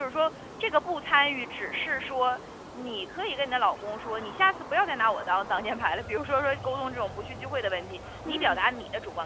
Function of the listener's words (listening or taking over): listening